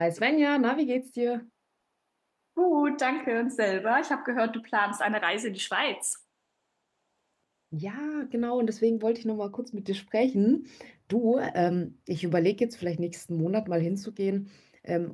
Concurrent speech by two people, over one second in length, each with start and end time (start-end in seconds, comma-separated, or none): none